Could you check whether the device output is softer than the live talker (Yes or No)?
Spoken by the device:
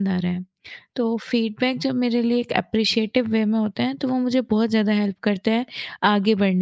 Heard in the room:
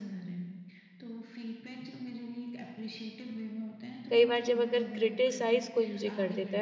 Yes